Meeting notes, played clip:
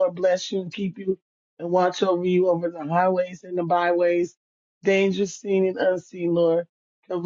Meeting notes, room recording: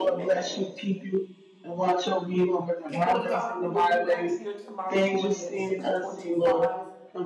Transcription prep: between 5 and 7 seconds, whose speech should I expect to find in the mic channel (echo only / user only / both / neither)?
both